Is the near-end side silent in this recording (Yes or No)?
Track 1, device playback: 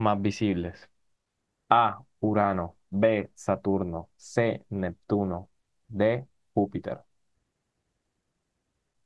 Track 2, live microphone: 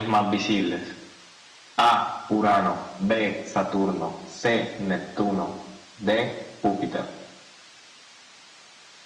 Yes